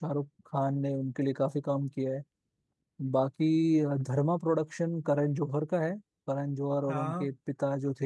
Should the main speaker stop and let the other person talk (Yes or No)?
No